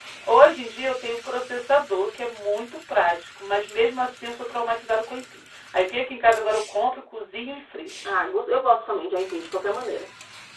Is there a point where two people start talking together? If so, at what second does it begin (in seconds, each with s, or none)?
none